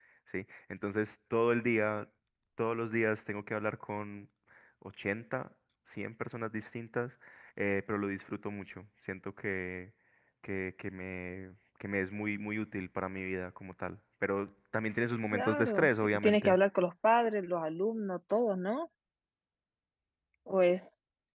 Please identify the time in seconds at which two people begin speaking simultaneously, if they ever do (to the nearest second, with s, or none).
15 s